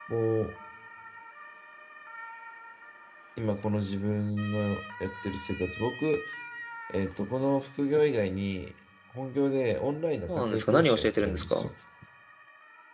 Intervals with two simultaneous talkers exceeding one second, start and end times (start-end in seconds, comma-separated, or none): 10.3-11.7